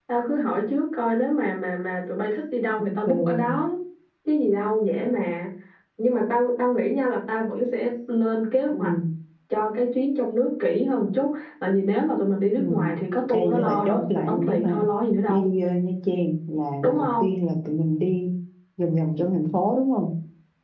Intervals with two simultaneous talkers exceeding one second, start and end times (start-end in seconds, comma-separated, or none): 13.3-14.8